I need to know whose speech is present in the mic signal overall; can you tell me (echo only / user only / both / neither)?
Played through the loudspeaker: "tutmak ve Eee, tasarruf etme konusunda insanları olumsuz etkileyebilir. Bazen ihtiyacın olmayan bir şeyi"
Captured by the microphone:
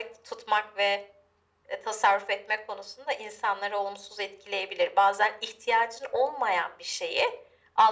echo only